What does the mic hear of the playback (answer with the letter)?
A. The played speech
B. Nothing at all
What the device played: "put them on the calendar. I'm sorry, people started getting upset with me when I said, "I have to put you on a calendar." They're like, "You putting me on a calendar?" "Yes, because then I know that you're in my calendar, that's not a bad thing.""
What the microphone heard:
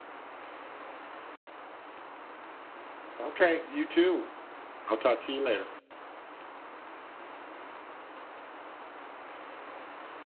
B